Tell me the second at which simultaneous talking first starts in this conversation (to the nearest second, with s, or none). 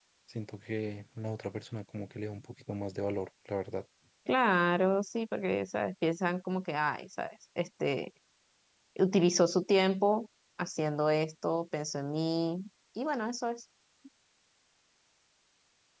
none